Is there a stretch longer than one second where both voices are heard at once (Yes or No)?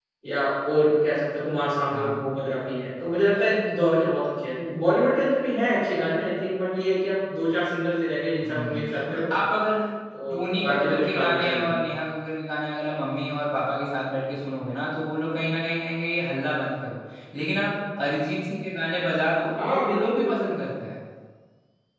Yes